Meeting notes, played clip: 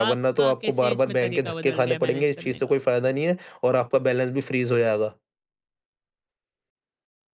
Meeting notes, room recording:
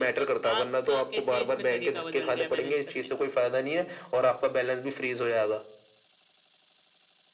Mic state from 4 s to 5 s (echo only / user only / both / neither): echo only